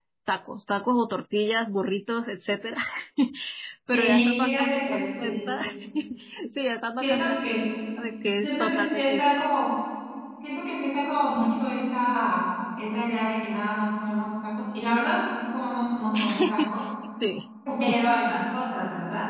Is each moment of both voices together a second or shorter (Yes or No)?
No